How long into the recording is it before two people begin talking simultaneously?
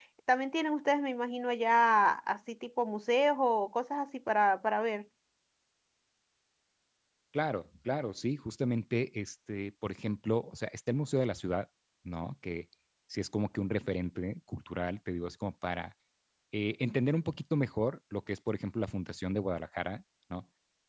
none

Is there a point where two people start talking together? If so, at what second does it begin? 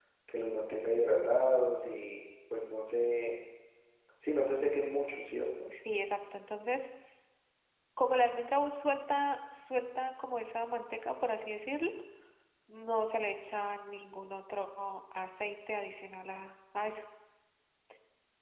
none

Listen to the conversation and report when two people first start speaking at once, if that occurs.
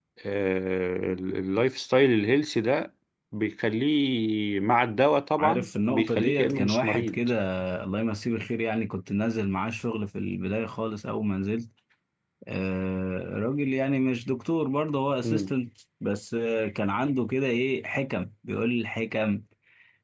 5.4 s

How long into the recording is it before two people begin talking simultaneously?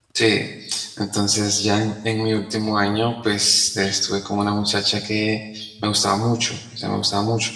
none

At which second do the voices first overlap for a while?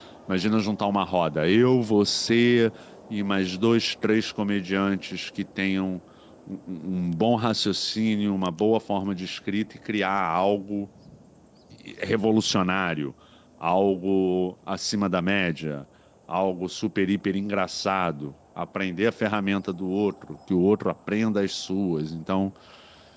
none

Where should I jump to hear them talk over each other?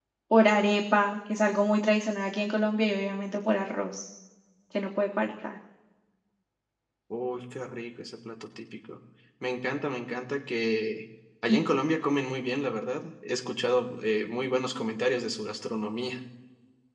none

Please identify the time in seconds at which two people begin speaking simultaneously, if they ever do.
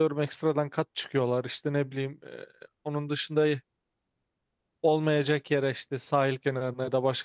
none

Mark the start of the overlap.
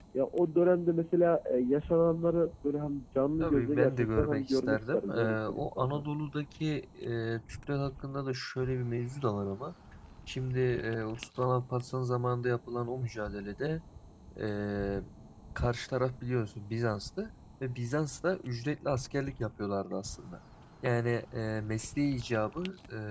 3.4 s

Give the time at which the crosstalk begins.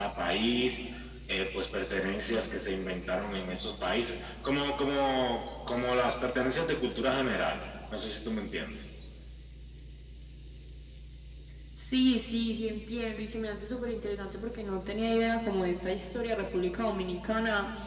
none

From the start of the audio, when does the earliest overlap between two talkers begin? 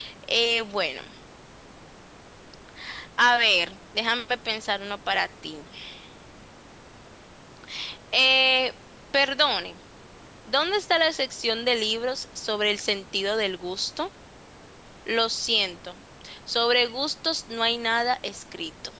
none

